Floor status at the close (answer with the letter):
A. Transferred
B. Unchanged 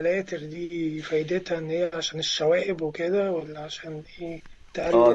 A